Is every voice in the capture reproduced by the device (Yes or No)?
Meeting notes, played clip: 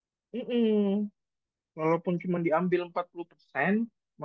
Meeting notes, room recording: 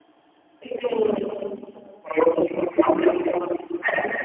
Yes